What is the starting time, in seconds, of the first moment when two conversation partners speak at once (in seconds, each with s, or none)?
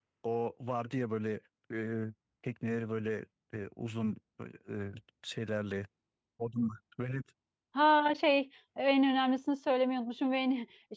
none